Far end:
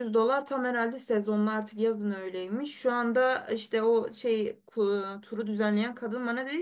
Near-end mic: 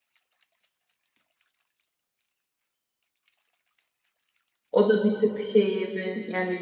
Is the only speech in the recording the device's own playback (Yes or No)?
No